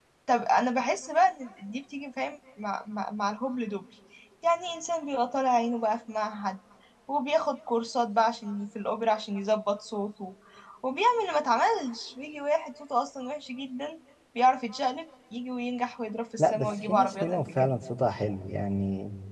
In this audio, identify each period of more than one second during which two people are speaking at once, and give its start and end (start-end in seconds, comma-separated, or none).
16.4-17.7